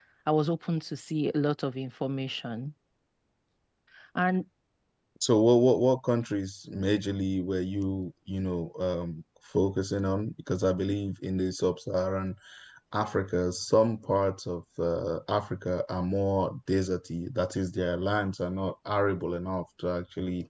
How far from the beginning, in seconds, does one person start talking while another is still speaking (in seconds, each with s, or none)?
none